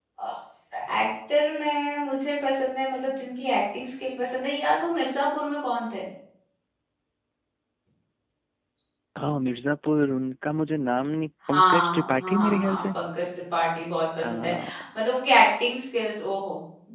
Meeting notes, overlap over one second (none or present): present